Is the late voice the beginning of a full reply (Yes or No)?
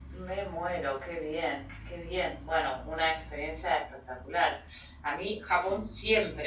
No